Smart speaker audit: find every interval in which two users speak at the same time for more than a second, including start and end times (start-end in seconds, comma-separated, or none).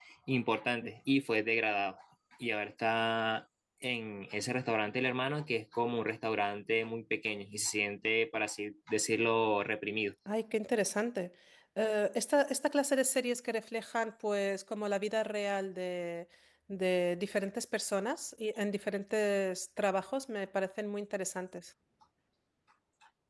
none